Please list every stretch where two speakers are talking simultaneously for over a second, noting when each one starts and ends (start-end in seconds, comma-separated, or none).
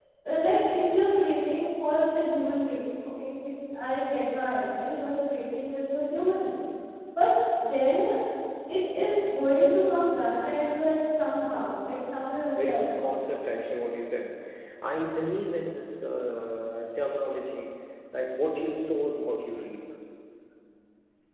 none